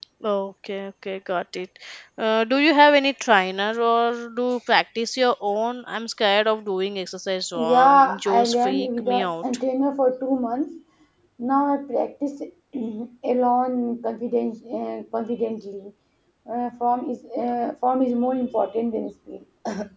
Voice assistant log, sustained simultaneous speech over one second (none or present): present